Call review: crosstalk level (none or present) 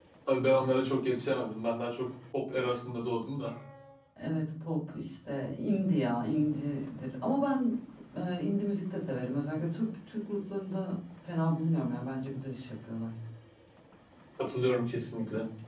none